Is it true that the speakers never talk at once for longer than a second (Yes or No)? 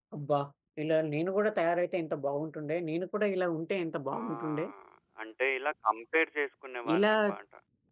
Yes